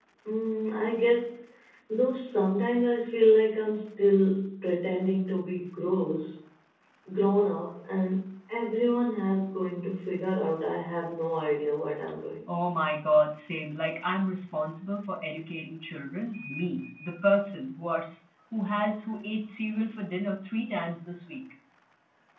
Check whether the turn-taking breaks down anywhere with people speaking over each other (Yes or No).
No